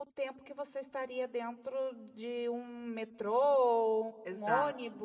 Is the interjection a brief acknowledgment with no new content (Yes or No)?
Yes